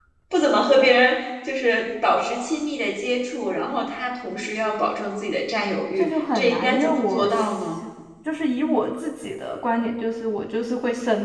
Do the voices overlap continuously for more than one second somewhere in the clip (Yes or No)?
Yes